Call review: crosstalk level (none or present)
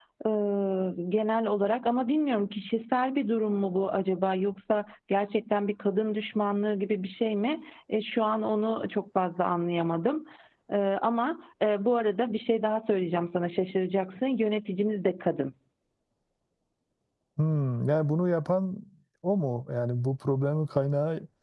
none